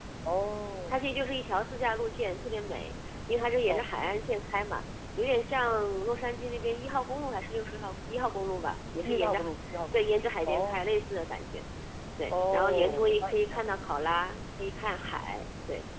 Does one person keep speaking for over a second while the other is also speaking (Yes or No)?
Yes